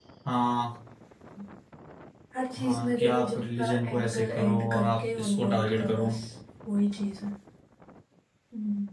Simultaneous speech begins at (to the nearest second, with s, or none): 3 s